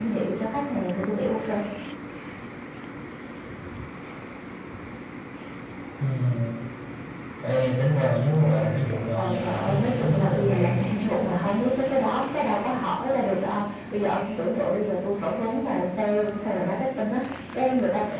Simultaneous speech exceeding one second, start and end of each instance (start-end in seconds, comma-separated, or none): 9.2-10.9